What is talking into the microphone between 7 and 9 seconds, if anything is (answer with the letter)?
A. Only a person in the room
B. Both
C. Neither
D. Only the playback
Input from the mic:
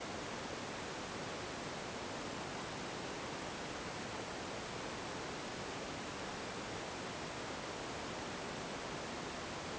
C